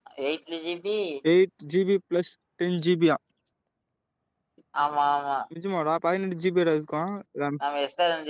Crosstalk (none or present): none